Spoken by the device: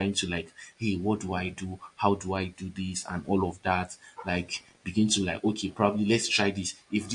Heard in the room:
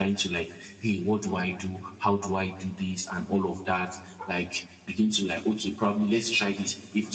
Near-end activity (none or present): none